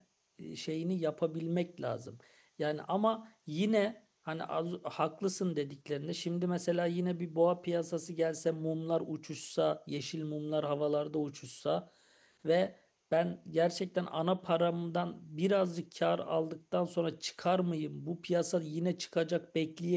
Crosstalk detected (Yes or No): No